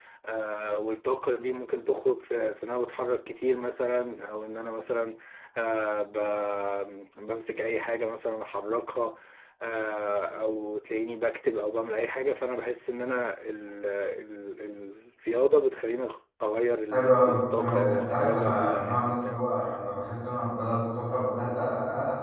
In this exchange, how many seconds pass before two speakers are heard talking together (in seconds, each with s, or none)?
16.9 s